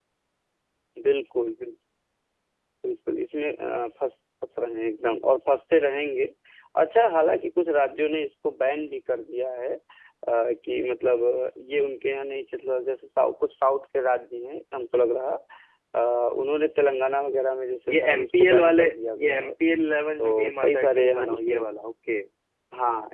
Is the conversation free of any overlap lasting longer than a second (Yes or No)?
No